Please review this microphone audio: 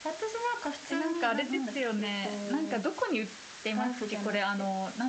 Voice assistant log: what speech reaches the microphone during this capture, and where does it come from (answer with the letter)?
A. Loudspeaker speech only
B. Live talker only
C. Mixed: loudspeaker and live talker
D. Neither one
C